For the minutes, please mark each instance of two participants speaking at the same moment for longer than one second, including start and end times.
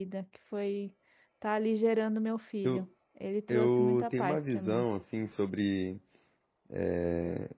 3.5-4.8

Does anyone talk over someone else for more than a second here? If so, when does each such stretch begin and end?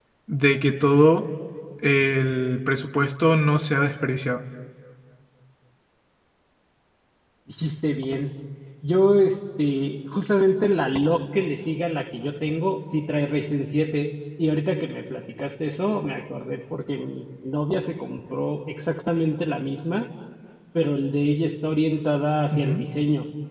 none

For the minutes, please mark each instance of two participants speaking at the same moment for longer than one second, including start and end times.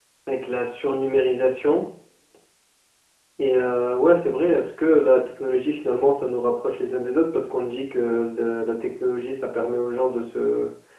none

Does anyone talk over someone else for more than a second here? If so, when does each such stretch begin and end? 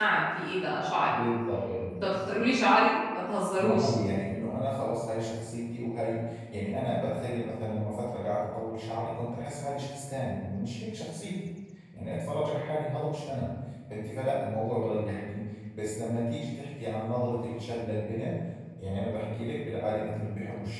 none

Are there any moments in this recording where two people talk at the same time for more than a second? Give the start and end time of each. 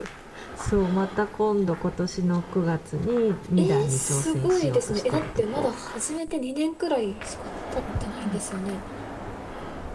3.6-5.7

